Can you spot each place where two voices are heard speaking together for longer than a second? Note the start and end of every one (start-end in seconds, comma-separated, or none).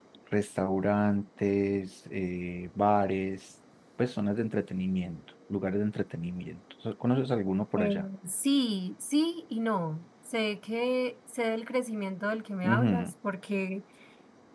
none